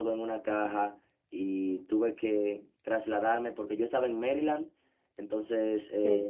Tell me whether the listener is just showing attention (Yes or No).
Yes